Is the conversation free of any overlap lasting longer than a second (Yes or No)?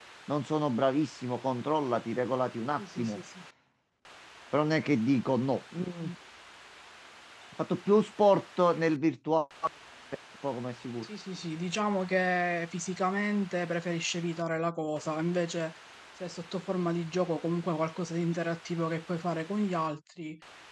Yes